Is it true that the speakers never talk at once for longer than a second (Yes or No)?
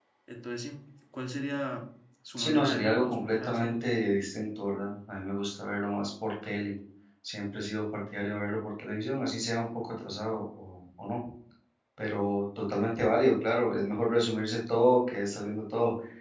No